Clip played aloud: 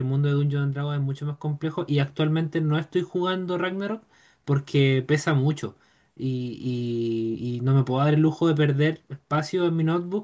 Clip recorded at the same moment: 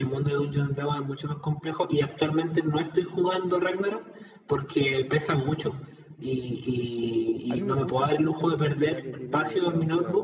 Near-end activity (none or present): present